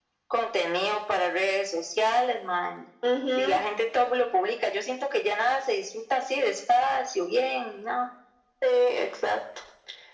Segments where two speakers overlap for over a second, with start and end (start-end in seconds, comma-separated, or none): none